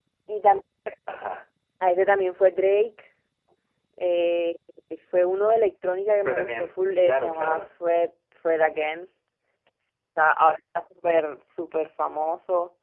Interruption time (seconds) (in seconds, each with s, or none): 6.2 s